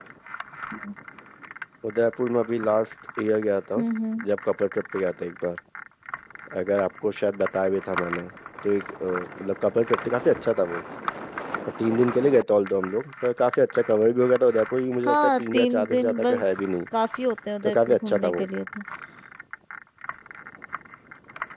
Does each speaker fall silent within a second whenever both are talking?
No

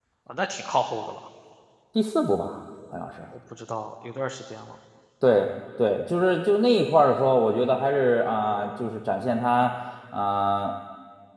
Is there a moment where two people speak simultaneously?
No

